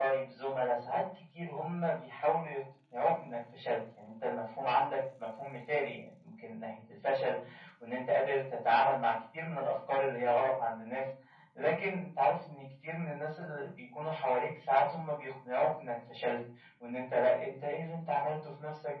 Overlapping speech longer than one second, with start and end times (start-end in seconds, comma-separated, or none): none